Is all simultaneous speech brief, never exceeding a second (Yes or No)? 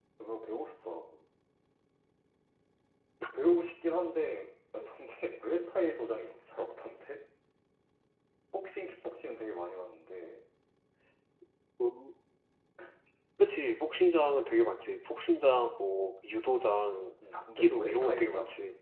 No